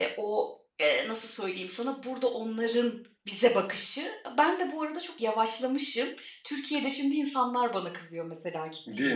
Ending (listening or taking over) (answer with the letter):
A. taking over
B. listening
A